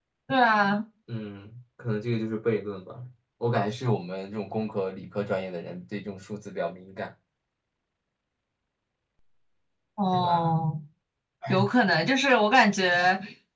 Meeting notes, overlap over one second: none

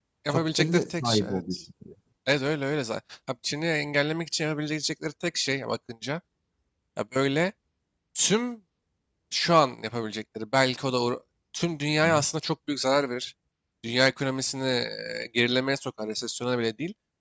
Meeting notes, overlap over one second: present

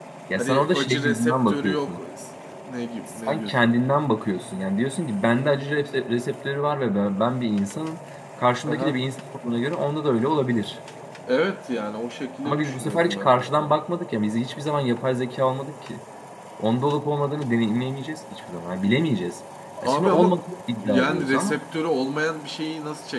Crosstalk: present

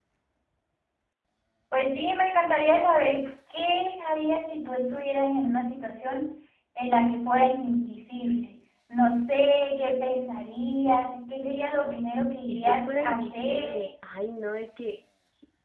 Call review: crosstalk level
present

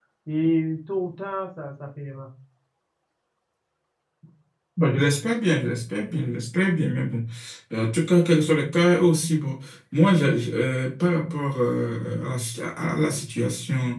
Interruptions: none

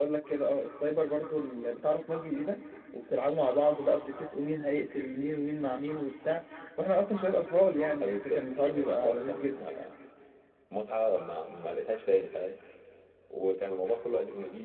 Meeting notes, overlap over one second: present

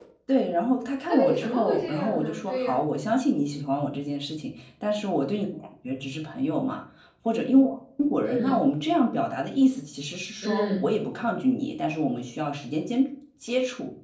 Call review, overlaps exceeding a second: present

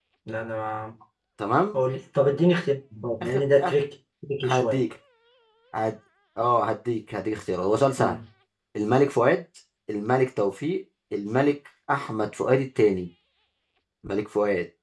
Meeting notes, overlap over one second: none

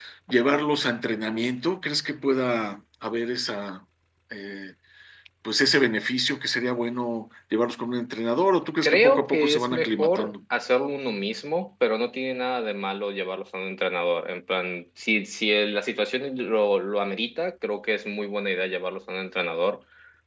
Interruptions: present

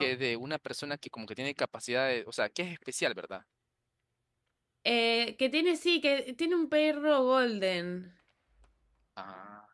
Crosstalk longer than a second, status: none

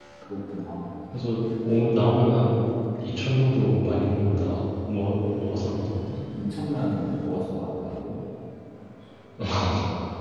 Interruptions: none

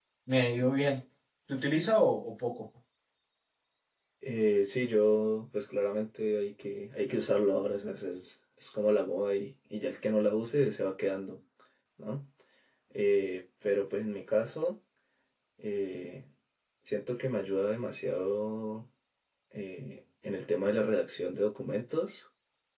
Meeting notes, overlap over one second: none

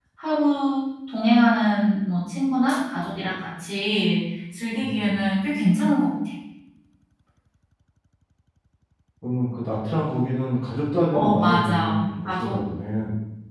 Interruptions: present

